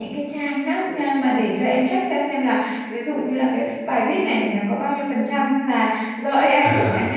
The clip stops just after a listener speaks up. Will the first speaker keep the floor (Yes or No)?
Yes